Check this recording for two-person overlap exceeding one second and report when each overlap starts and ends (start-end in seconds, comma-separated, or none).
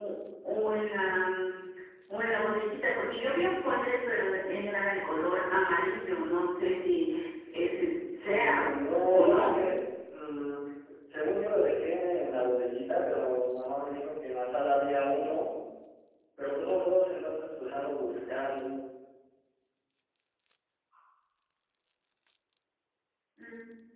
8.2-9.5